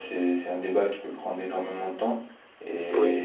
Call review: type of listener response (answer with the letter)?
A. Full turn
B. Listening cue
B